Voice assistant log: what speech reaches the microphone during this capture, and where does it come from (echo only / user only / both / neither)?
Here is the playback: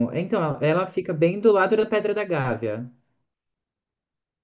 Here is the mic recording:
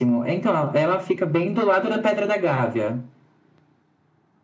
echo only